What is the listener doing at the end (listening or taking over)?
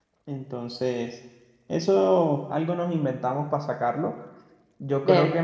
listening